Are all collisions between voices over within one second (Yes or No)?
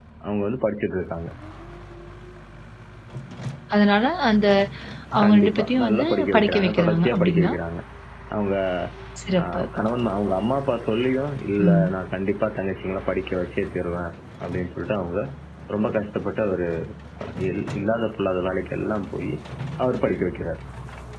No